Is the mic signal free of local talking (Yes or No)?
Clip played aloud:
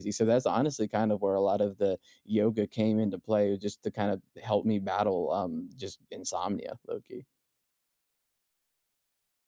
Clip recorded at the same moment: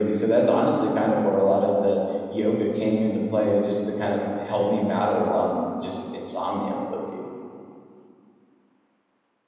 Yes